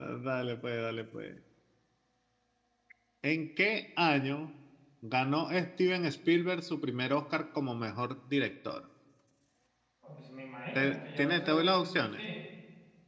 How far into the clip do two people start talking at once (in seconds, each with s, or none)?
10.8 s